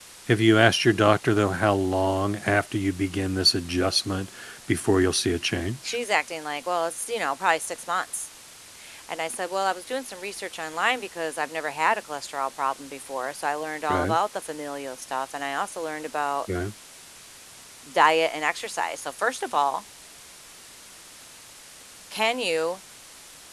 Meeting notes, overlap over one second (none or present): none